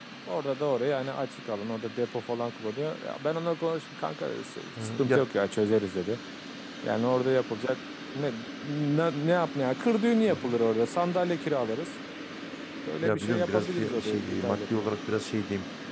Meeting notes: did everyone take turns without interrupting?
No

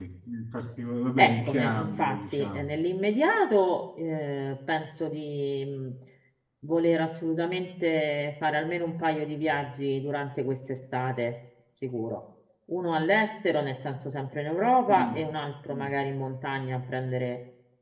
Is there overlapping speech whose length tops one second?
Yes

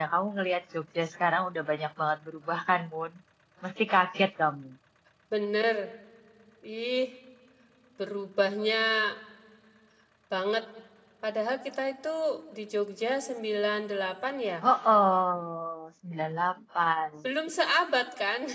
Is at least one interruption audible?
No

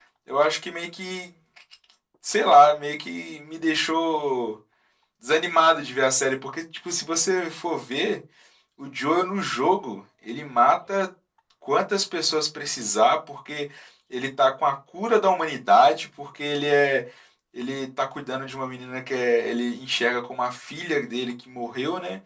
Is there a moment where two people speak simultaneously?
No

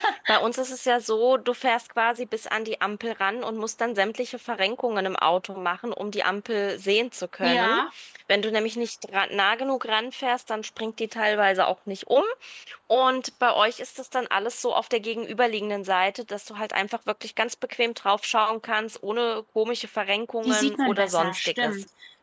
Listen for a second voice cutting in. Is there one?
Yes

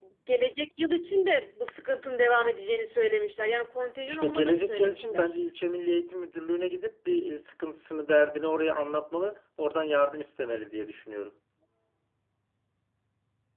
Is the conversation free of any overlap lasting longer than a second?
No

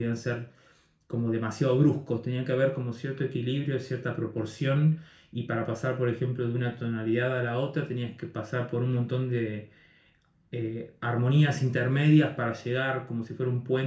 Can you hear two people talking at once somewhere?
No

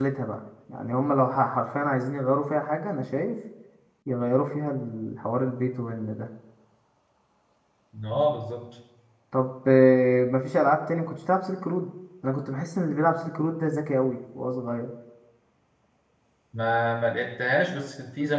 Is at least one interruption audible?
No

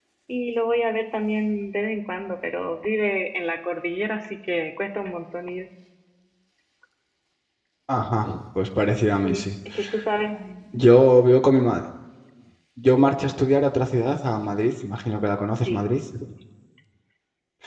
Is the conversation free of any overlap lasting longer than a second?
Yes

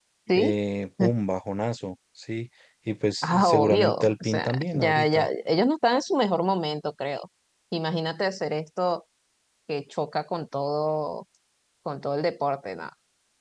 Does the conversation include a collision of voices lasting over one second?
Yes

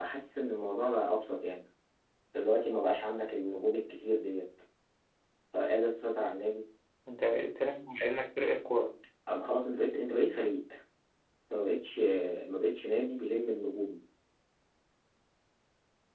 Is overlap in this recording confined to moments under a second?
Yes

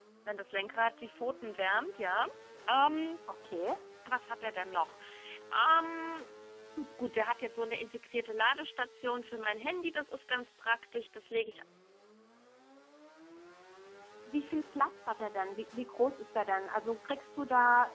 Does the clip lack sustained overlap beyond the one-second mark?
Yes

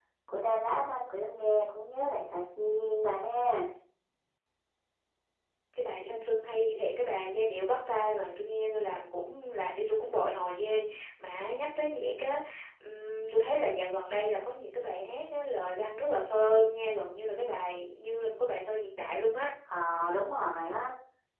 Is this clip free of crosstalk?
Yes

